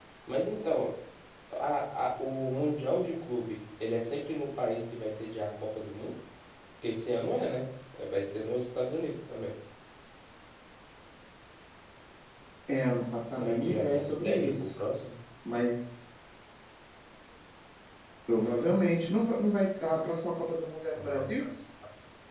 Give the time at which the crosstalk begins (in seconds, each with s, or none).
13.3 s